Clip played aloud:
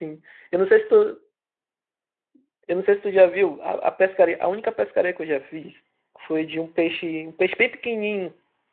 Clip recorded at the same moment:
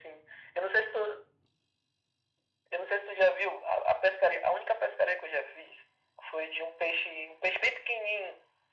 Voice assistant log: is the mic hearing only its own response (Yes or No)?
Yes